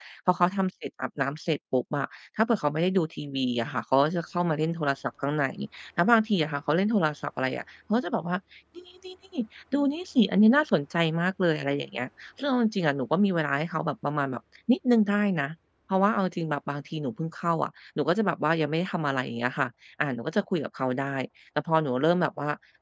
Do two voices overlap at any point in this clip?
No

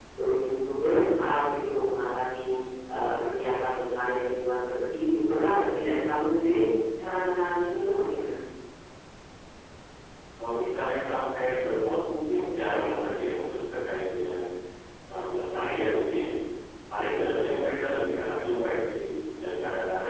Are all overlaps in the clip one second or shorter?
Yes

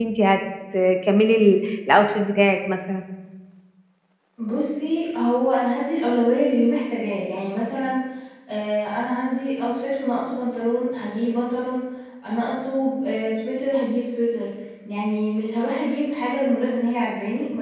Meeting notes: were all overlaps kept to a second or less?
Yes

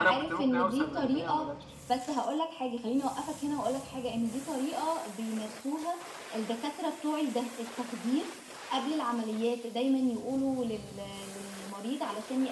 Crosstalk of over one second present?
Yes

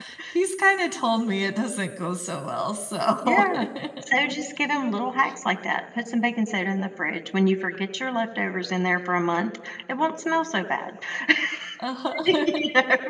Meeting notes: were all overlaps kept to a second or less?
Yes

